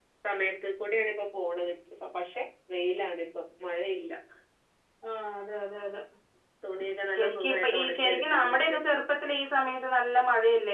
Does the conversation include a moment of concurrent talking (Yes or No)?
Yes